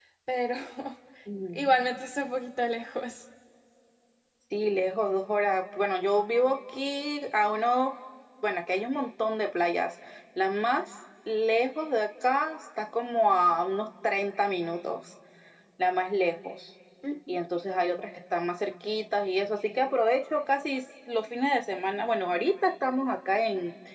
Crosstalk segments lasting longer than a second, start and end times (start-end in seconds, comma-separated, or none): none